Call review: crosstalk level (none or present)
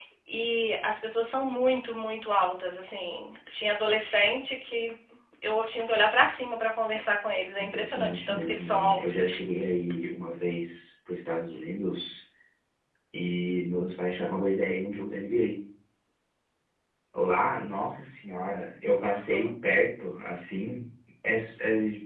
present